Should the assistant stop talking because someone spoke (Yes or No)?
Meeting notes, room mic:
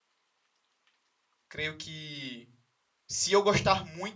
Yes